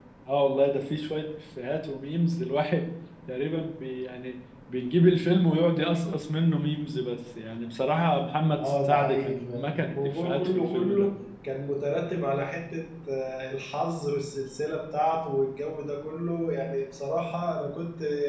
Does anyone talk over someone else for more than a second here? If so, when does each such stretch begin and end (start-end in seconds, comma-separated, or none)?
8.6-11.1